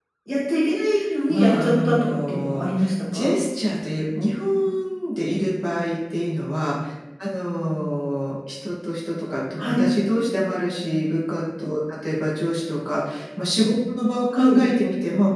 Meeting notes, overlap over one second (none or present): present